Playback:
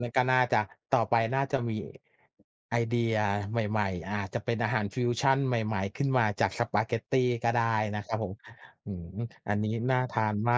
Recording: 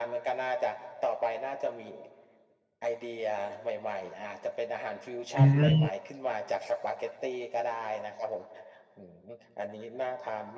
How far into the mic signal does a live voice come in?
5 s

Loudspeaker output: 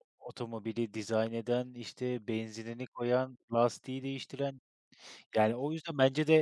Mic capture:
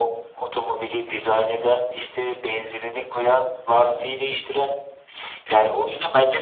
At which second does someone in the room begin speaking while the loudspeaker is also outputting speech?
none

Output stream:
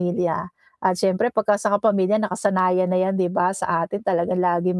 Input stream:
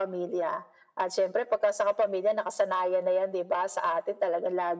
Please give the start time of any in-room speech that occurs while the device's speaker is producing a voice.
none

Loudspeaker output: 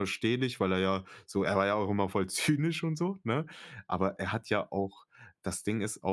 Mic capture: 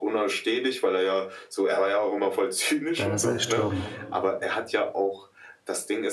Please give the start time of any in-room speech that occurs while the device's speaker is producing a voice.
3 s

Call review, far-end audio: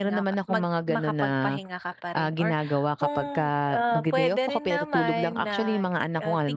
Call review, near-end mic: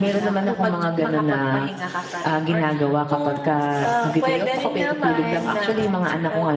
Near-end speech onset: 0 s

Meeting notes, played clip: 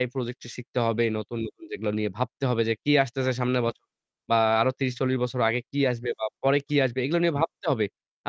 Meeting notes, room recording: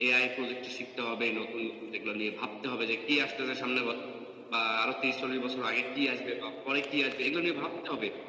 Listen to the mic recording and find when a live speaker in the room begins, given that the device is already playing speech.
none

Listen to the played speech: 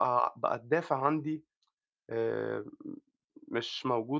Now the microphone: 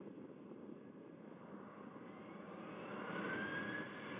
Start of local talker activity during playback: none

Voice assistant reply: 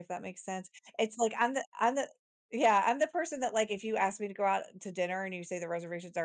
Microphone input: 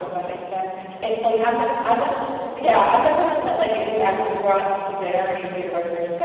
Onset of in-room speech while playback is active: none

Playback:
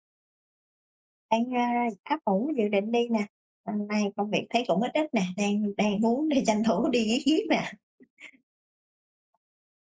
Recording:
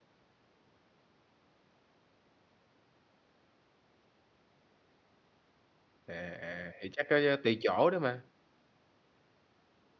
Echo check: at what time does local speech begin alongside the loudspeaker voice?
6 s

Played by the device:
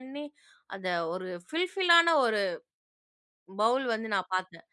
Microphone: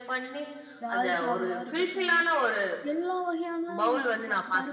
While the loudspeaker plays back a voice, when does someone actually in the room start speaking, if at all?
1 s

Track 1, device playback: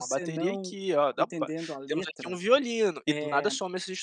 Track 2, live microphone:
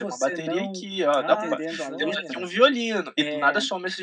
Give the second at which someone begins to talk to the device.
1 s

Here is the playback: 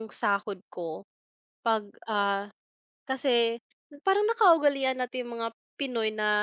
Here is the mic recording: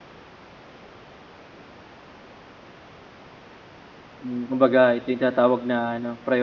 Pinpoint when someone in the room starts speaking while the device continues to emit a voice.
4 s

